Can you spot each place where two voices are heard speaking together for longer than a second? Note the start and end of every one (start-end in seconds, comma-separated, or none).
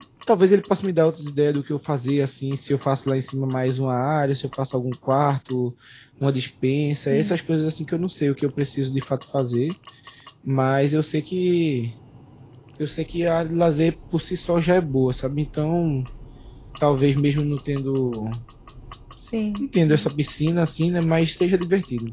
none